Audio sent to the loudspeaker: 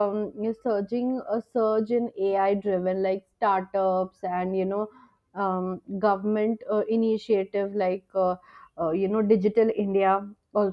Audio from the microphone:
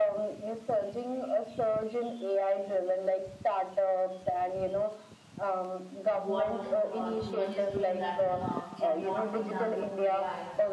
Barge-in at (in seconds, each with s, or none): 6.1 s